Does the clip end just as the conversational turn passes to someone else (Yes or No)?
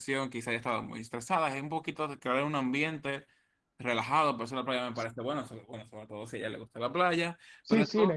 Yes